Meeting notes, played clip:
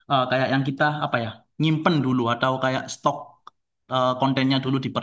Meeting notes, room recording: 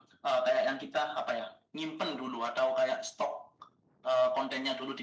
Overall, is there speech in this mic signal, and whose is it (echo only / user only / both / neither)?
echo only